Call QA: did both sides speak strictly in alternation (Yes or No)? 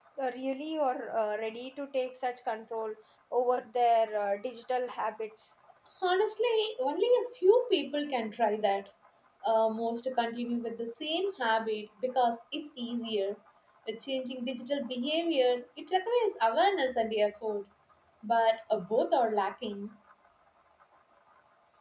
Yes